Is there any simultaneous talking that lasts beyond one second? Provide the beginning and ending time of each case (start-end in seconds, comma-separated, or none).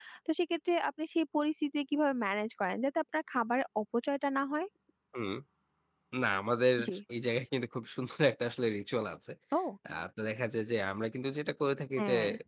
none